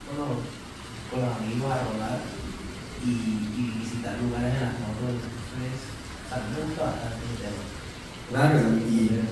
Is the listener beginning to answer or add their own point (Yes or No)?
Yes